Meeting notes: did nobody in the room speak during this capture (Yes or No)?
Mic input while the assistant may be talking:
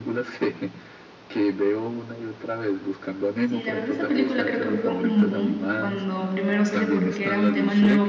No